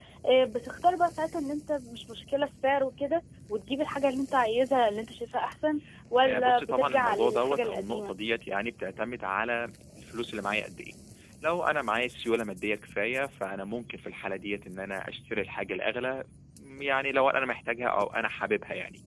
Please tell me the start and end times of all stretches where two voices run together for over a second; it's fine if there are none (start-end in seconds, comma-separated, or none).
6.2-8.1